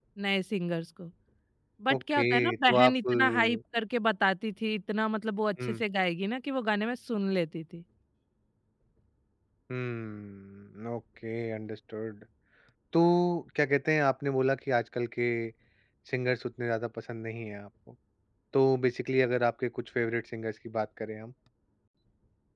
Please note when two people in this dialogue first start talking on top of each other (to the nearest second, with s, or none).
2 s